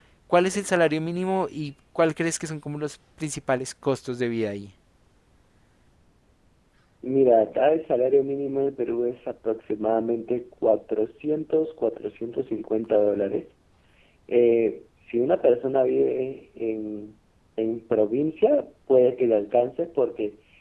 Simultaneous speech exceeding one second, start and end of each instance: none

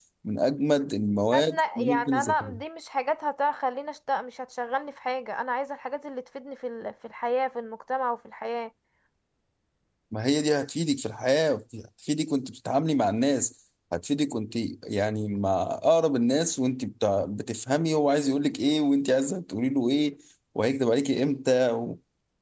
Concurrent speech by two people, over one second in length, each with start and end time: 1.3-2.5

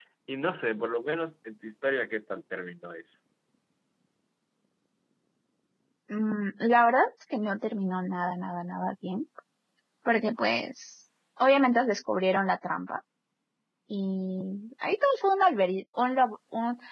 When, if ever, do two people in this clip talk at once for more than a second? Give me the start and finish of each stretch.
none

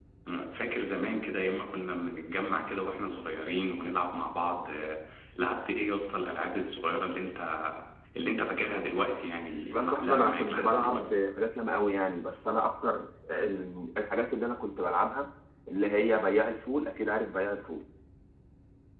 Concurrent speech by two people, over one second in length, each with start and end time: 9.7-11.1

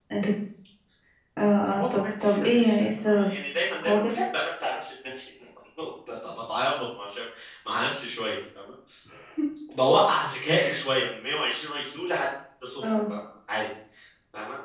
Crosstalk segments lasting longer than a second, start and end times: 1.8-3.3

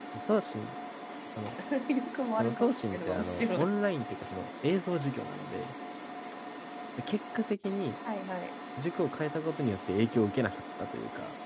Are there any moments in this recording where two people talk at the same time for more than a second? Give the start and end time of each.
2.4-3.7

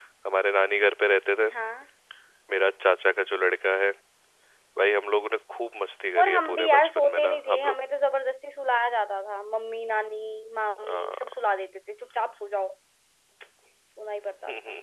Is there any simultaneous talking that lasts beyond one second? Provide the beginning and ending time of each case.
6.2-7.7

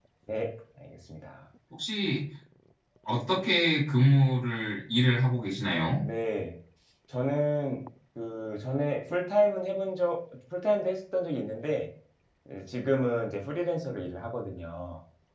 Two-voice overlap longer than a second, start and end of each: none

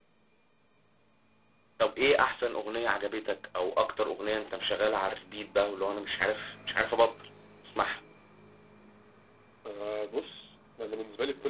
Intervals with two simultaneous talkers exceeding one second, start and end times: none

